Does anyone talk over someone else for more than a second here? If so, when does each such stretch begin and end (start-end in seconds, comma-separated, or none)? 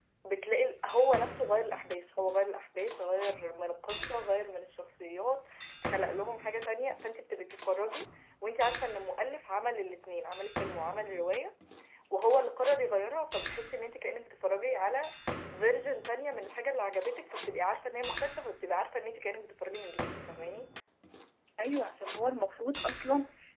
none